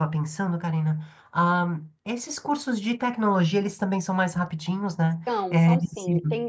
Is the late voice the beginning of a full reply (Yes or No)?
Yes